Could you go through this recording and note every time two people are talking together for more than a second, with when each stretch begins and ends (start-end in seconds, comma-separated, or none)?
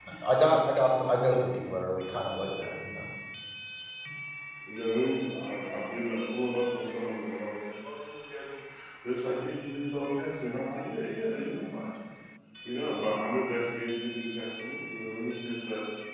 none